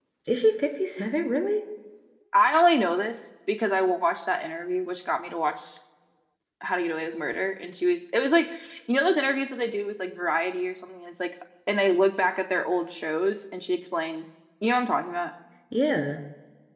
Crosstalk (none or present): none